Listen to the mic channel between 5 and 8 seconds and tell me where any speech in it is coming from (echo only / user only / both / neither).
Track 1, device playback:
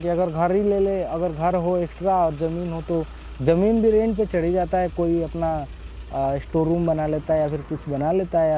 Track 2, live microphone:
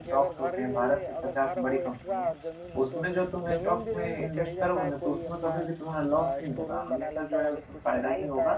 both